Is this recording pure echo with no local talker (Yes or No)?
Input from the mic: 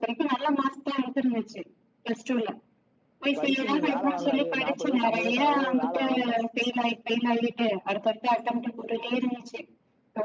No